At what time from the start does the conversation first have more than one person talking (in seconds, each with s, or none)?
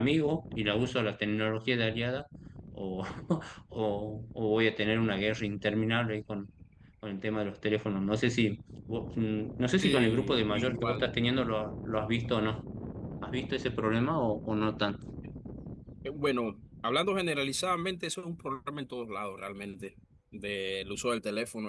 9.8 s